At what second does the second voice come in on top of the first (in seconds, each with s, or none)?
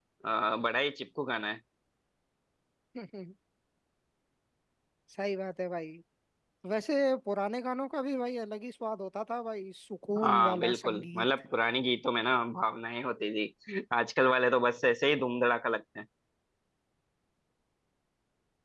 10.2 s